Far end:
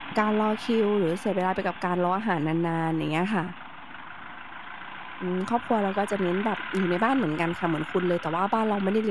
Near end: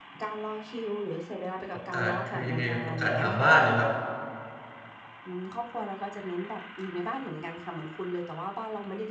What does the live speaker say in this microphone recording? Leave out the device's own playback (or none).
ประกาศคือยังไงอะประกาศหาบ้านน่ะครับ